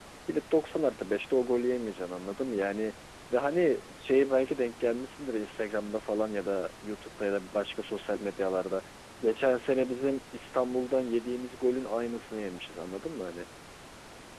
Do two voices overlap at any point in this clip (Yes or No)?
No